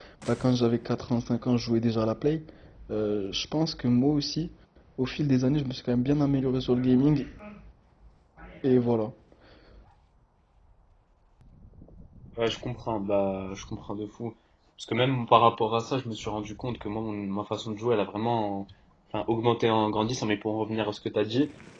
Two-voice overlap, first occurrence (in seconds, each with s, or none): none